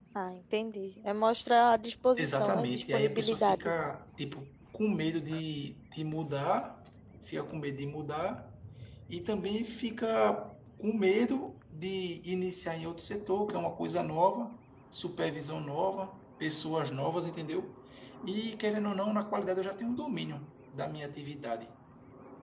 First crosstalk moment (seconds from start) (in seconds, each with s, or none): 2.2 s